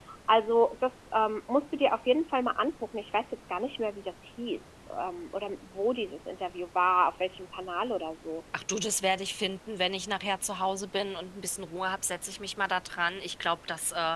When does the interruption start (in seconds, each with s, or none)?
none